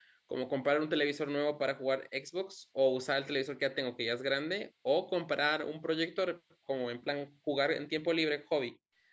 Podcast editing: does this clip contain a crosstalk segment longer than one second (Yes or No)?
No